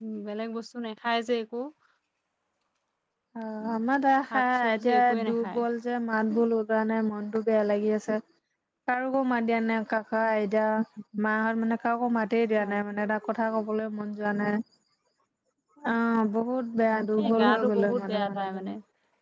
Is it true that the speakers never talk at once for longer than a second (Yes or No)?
No